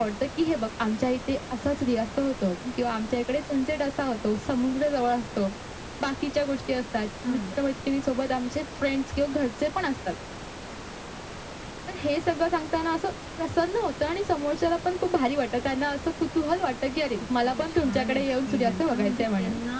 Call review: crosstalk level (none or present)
present